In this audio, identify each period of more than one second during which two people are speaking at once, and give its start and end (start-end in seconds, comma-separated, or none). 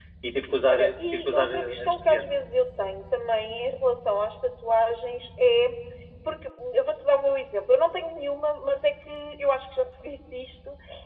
0.7-2.3